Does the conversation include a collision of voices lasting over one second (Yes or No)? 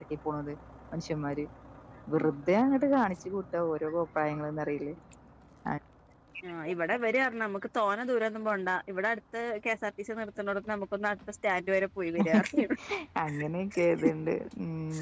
No